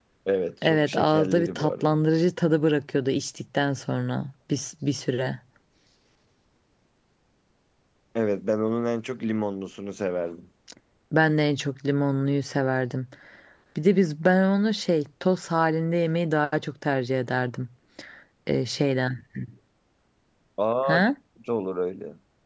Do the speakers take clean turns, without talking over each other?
No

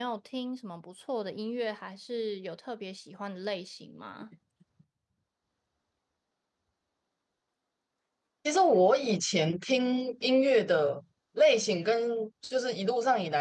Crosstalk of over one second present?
No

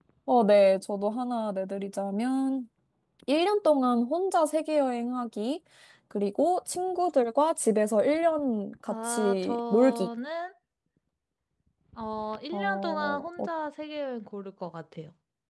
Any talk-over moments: Yes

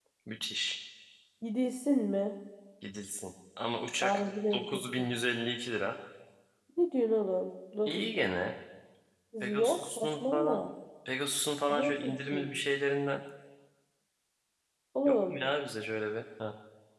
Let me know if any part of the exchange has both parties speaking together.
Yes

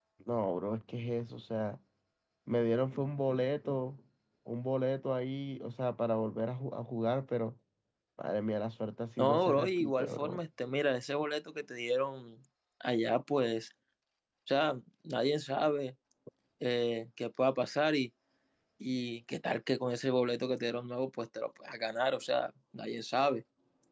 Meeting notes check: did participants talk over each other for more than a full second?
Yes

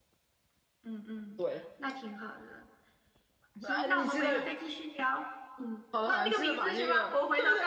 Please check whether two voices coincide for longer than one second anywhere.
Yes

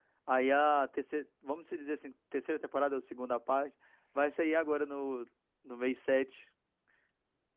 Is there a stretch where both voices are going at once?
No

